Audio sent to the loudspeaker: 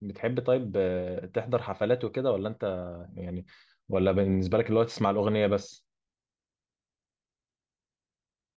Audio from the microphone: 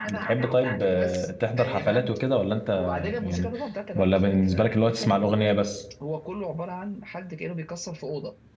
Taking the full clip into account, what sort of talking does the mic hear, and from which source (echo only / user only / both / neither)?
both